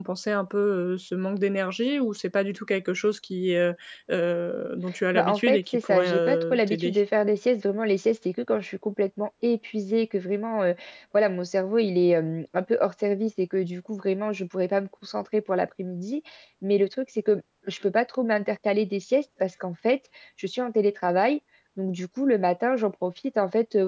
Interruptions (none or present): present